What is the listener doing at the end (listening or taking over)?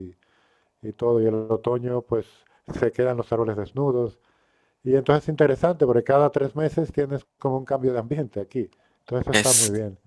taking over